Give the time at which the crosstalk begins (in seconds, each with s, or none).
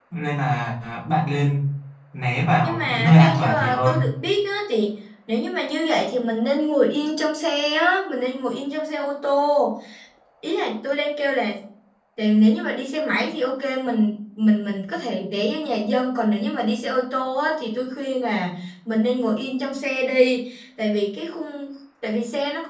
2.6 s